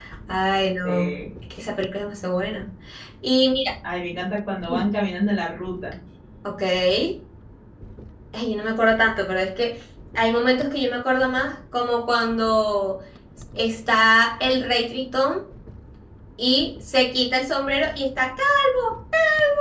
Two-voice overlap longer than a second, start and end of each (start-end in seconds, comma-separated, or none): none